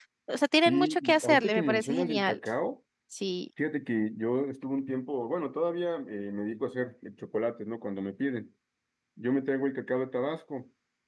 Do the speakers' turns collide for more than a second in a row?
Yes, from 0.6 s

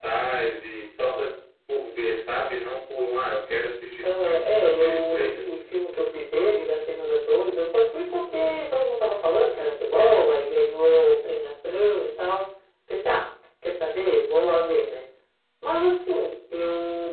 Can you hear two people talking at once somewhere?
Yes, from 4.0 s

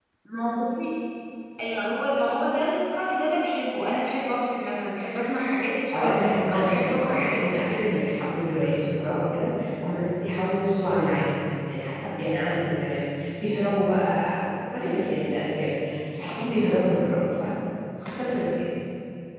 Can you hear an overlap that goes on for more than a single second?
Yes, from 5.9 s

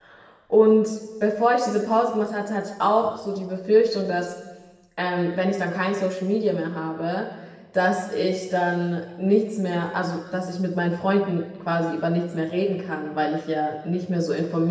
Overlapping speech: No

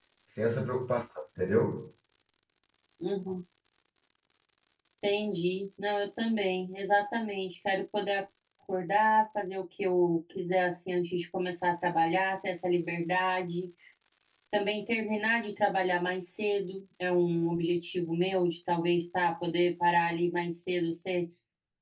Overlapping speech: No

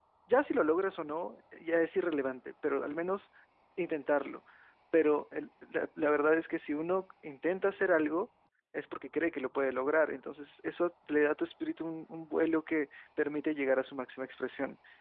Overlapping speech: No

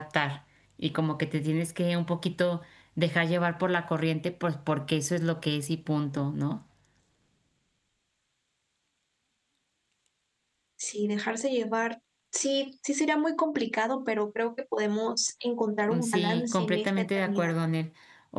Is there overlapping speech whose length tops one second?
Yes, from 15.9 s

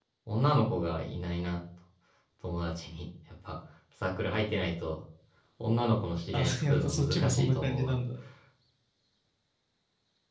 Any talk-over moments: Yes, from 6.3 s

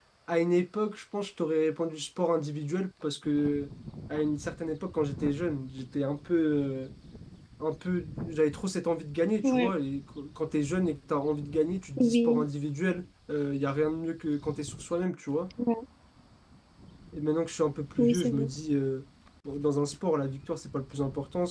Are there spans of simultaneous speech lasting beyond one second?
No

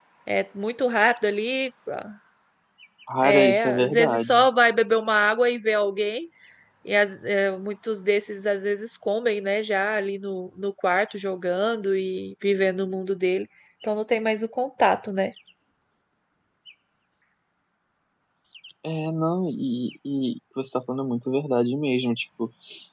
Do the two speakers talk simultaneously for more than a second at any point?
Yes, from 3.2 s

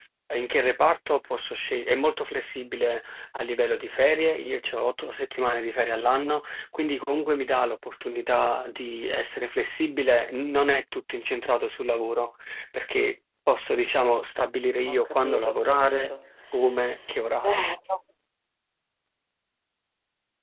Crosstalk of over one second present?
Yes, from 14.9 s

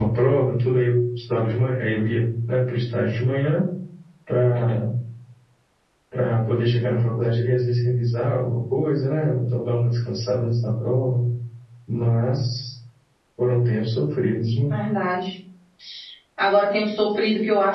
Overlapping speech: No

